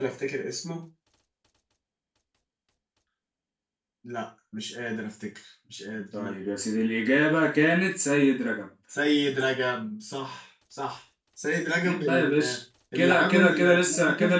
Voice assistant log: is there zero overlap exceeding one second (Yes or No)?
No